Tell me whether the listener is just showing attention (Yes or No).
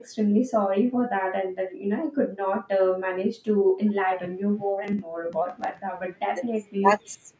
No